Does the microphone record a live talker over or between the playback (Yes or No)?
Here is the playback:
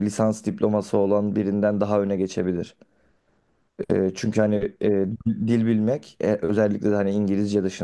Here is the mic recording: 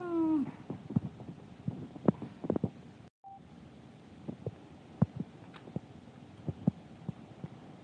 No